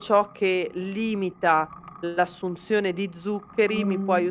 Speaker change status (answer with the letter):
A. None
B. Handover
A